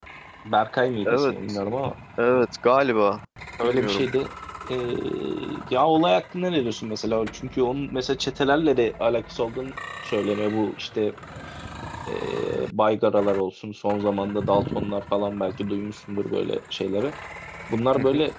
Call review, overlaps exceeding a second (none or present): none